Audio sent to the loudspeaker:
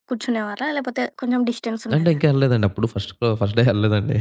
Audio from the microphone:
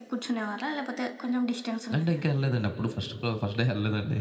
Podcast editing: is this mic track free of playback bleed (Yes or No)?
No